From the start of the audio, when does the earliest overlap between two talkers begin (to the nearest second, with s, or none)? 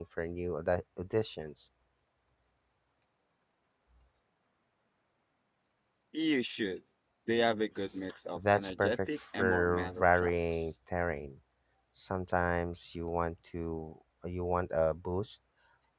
8 s